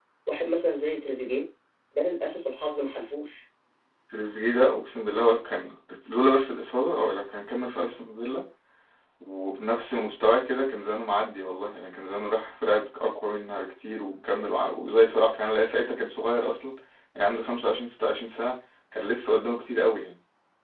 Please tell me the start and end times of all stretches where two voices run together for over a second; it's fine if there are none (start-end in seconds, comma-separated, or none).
none